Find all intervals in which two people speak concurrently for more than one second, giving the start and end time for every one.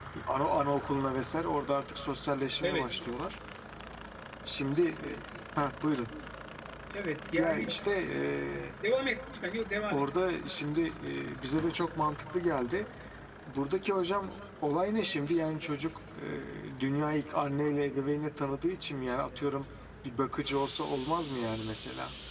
none

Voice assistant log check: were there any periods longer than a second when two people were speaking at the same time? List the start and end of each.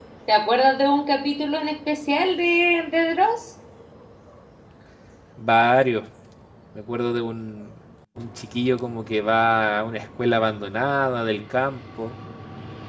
none

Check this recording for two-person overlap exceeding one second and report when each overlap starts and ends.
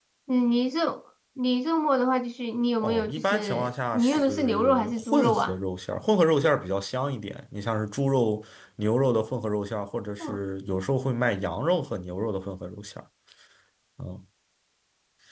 2.8-5.5

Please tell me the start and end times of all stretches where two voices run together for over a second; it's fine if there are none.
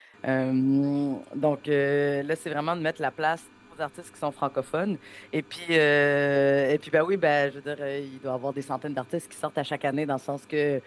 none

